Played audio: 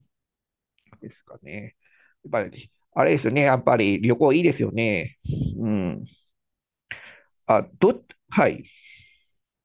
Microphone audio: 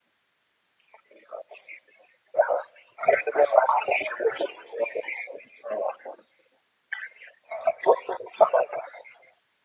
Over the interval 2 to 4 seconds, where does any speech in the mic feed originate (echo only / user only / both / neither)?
echo only